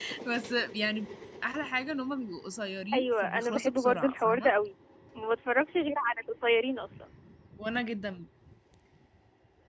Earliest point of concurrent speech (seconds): 2.9 s

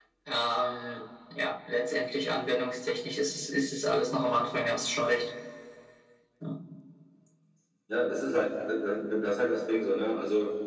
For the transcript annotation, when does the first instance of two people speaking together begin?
none

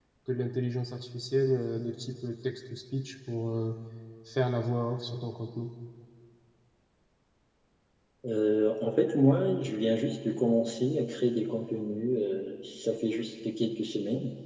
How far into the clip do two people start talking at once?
none

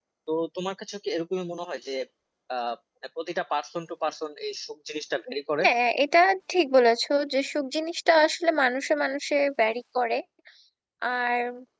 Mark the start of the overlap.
none

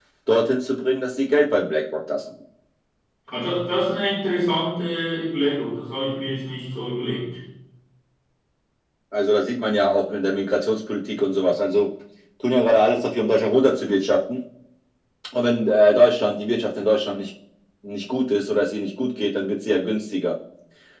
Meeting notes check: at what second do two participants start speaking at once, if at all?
none

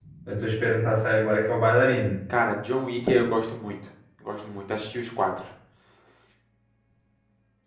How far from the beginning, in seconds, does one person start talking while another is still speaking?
none

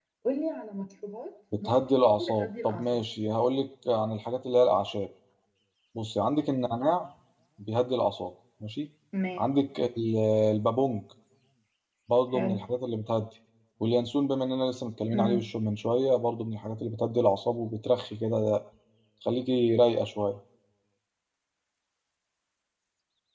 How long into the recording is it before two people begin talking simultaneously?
1.6 s

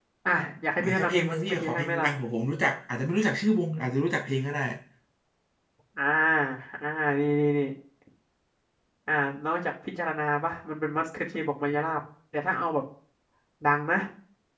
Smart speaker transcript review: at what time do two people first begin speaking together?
0.8 s

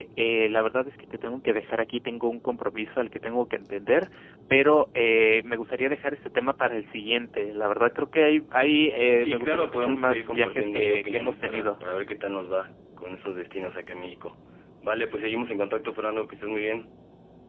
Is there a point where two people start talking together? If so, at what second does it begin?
9.2 s

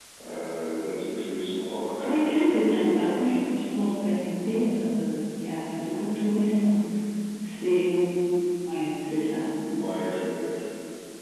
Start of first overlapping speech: 2.0 s

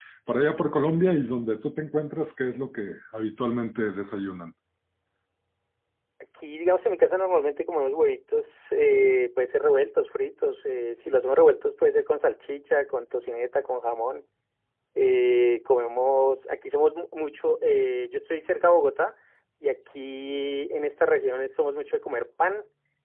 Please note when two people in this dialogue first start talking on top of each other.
none

